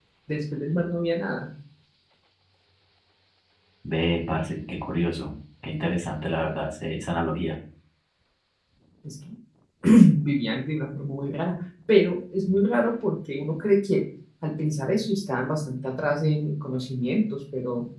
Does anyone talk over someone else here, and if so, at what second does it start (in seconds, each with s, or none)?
none